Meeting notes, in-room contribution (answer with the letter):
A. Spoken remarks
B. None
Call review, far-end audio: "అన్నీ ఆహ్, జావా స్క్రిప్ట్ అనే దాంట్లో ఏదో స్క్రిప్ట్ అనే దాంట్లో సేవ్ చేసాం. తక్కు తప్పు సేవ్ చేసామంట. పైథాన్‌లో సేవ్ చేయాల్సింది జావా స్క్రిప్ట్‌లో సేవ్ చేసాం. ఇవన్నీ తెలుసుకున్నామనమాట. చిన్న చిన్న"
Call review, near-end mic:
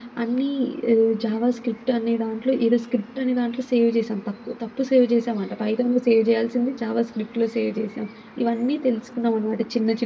B